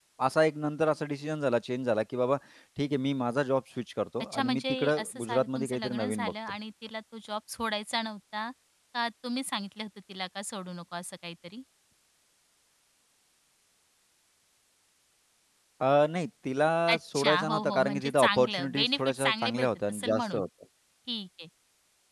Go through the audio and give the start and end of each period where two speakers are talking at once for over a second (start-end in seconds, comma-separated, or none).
4.3-6.3, 16.9-20.4